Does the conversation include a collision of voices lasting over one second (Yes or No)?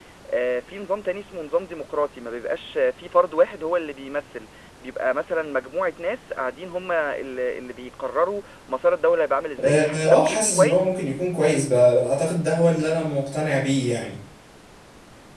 Yes